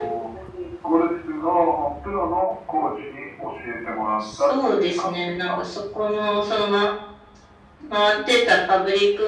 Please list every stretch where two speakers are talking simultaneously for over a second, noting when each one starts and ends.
4.4-5.6

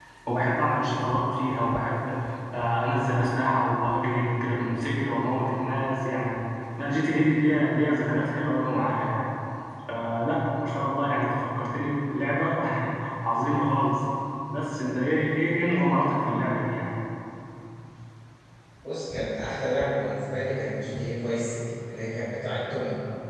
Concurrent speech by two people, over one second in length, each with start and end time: none

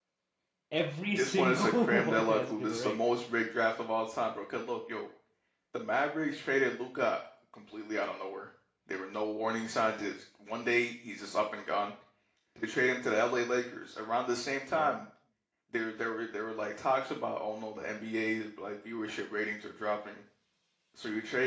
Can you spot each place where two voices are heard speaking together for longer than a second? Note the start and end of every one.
1.2-3.0

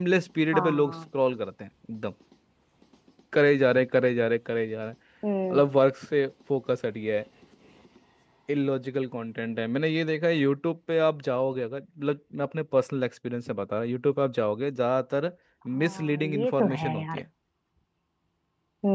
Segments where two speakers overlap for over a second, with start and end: 15.8-17.2

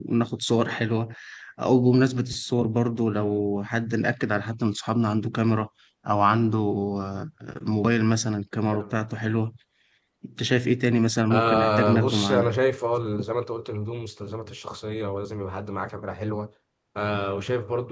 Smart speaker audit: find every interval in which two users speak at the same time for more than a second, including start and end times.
11.3-12.6

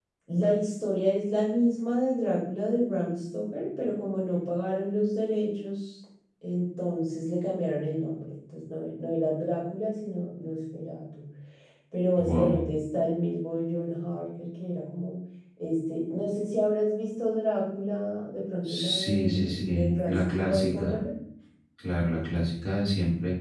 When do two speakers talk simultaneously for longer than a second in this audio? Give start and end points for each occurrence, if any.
18.6-21.0

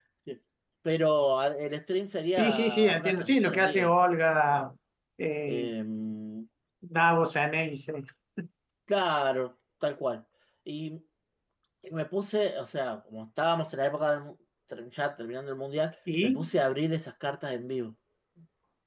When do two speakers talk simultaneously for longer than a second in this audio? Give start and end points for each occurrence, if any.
2.4-3.9

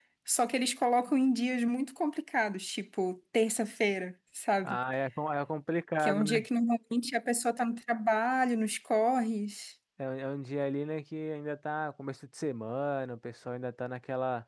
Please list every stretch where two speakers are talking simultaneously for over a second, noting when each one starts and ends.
none

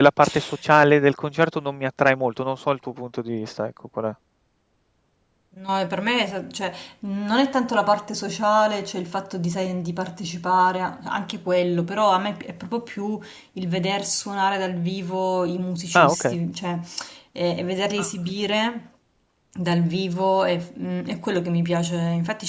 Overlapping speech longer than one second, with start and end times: none

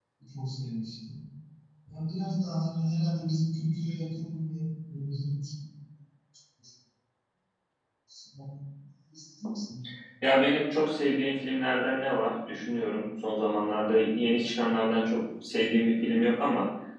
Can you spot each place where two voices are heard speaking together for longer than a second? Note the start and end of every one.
none

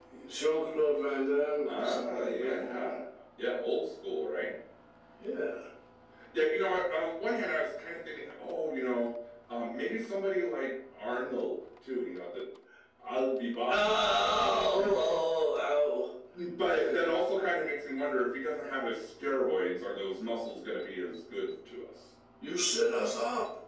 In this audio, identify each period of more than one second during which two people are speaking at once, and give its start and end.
1.6-2.9

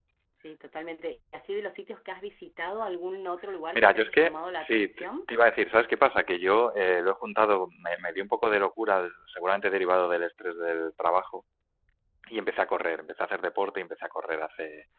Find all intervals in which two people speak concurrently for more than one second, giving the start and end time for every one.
3.8-5.0

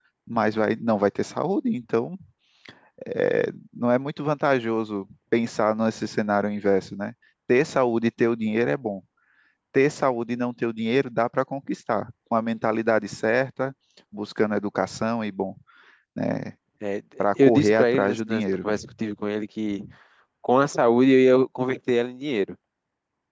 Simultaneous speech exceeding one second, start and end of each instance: 17.4-18.7

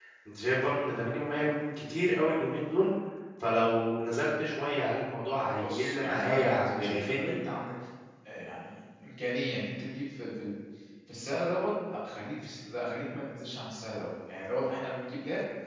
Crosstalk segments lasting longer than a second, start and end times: 5.6-7.4

